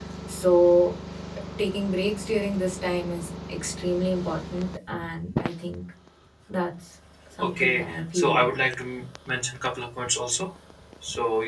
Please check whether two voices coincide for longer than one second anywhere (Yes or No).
Yes